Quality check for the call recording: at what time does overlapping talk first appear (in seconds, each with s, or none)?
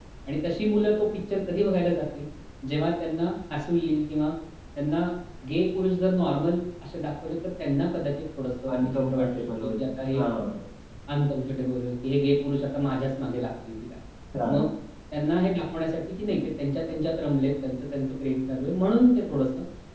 8.7 s